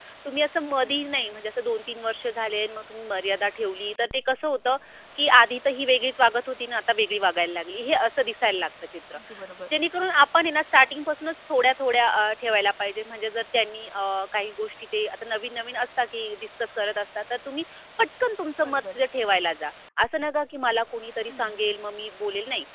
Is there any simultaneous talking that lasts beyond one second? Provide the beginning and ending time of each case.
none

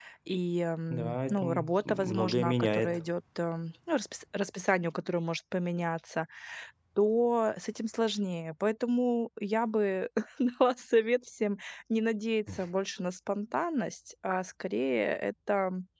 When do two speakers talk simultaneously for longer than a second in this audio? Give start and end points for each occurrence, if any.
0.9-3.0

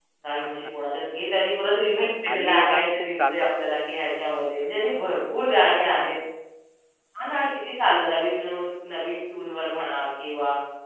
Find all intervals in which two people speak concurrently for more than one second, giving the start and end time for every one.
2.3-3.5

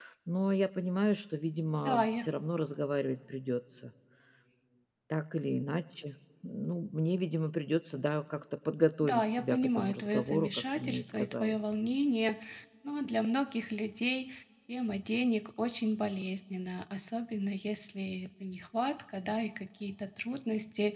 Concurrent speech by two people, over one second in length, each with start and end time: 9.0-11.6

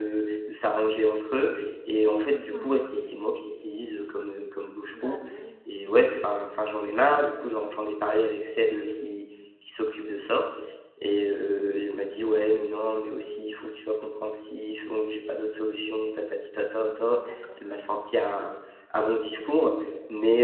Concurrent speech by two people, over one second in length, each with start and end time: none

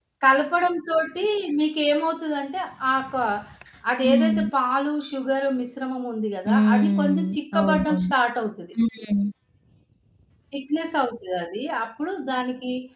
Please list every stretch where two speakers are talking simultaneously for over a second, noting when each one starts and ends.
6.5-8.1

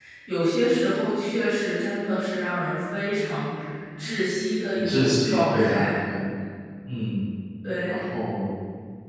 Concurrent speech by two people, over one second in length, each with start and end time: 4.7-6.0

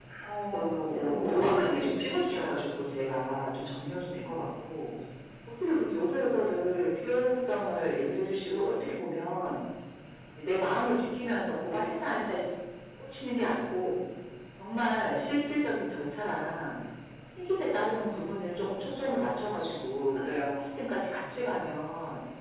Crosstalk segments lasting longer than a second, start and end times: 0.5-2.6

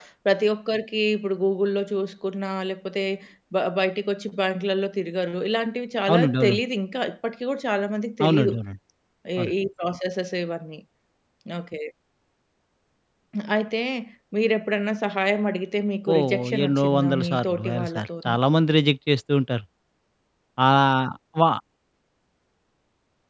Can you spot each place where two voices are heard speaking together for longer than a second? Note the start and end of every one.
16.1-18.4

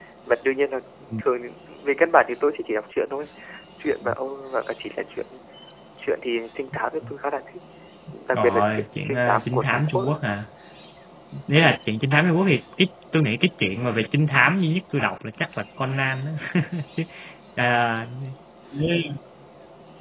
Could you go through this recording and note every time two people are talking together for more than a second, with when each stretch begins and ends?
8.3-10.0

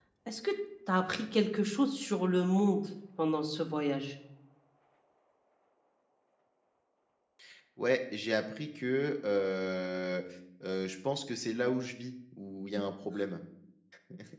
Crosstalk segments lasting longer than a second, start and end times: none

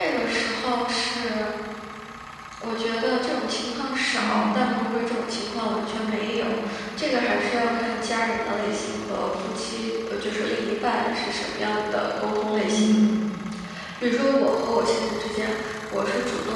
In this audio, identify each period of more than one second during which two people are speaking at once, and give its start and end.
none

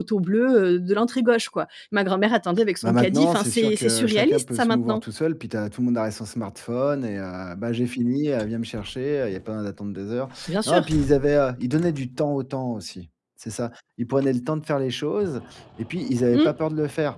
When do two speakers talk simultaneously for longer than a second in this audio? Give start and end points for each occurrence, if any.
2.8-5.0

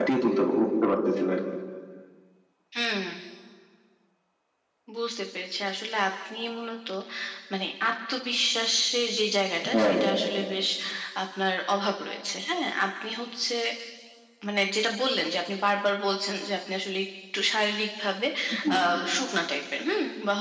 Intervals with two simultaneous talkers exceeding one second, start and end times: none

